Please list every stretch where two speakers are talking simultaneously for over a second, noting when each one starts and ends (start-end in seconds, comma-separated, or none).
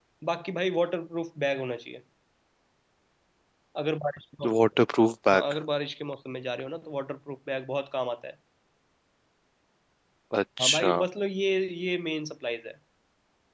none